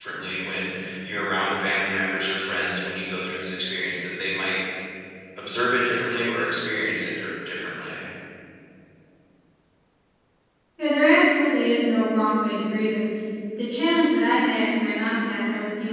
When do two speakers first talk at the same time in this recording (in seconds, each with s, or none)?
none